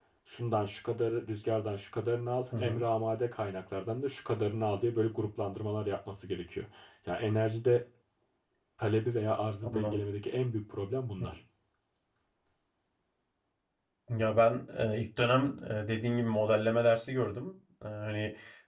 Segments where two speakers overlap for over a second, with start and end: none

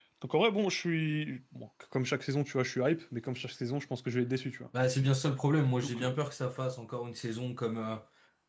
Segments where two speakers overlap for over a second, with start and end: none

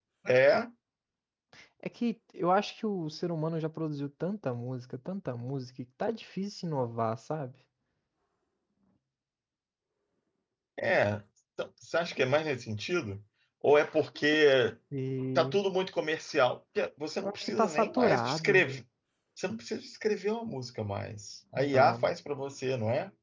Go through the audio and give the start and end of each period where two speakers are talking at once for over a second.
17.2-18.6

